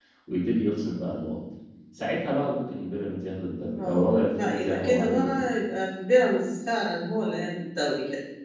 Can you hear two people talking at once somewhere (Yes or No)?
Yes